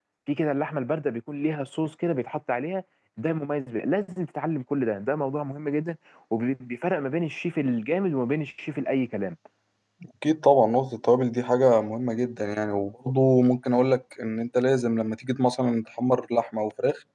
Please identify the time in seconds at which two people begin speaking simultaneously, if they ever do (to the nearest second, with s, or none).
none